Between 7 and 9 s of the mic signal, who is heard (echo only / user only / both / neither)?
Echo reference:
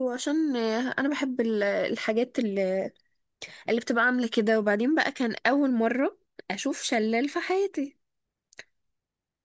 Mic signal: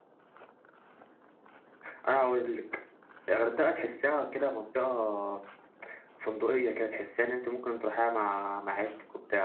user only